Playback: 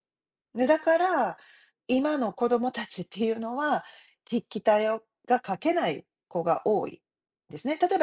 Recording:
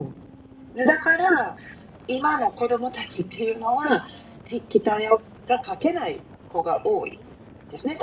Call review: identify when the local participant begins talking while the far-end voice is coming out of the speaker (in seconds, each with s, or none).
none